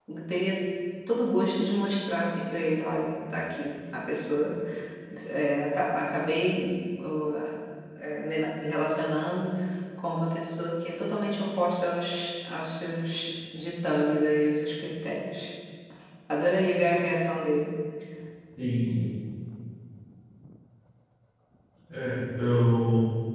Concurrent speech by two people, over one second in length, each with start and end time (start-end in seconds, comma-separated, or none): none